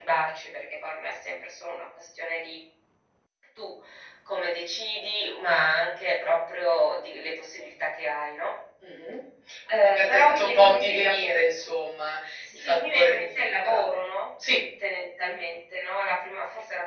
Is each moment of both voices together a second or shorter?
No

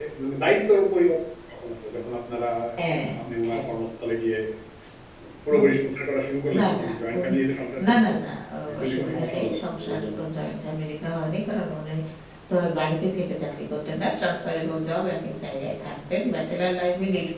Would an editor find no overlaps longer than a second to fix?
No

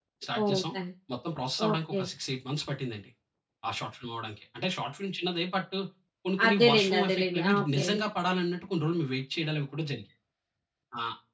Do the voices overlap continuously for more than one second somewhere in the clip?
Yes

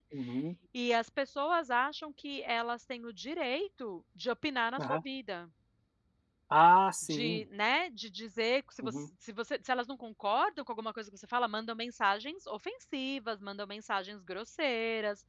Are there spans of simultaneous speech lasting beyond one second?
No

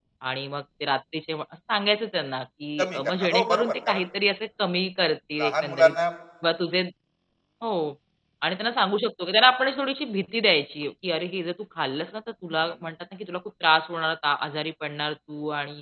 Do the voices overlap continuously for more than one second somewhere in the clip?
Yes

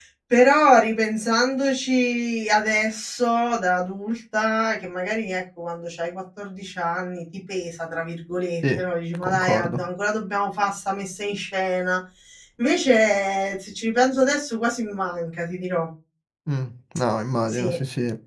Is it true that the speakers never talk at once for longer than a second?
Yes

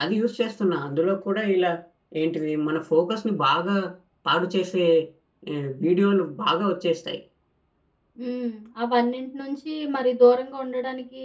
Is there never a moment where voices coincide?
Yes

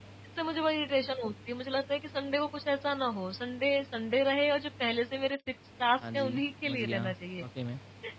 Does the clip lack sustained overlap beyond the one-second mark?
No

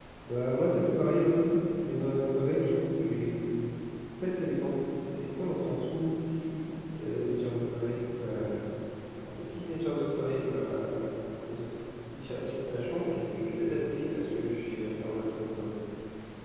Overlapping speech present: No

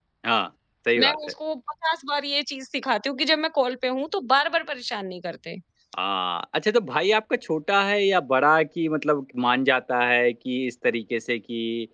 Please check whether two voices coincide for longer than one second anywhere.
No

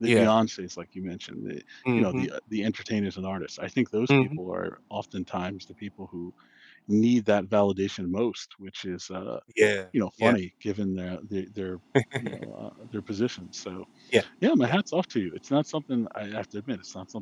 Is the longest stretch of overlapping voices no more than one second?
Yes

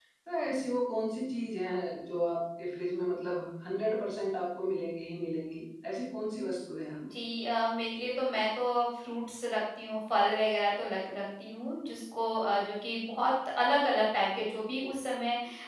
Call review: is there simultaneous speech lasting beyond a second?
No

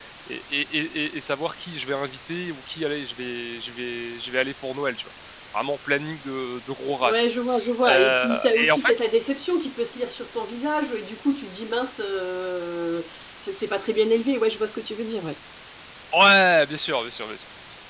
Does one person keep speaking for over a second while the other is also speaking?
Yes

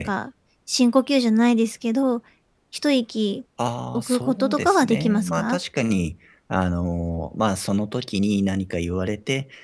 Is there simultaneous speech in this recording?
Yes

